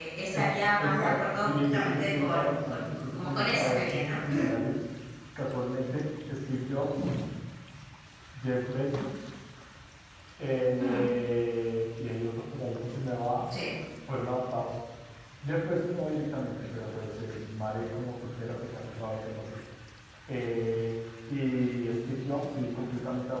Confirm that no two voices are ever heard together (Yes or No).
No